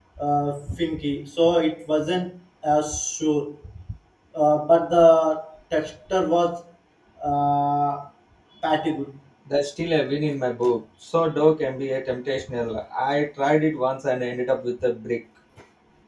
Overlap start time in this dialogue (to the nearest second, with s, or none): none